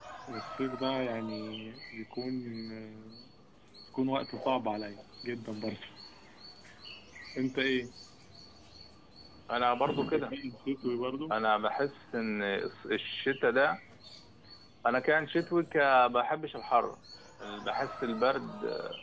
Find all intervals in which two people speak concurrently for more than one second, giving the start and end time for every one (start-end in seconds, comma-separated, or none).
none